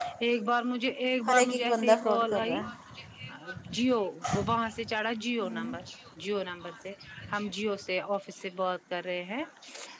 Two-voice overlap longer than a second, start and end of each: 1.3-2.6

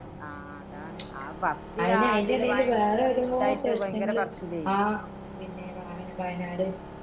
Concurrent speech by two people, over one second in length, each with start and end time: 1.8-4.2

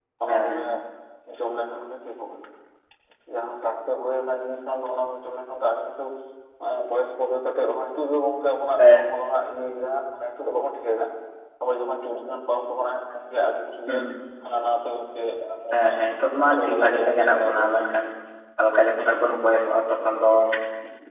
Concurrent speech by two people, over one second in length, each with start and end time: 16.6-18.0

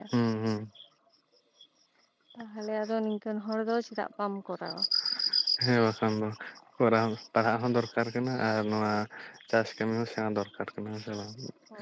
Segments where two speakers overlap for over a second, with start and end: none

